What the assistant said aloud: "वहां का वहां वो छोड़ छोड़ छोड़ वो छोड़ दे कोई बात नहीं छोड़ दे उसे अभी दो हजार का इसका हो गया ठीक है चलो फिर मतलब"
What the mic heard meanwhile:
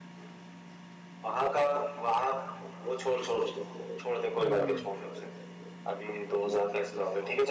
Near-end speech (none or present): present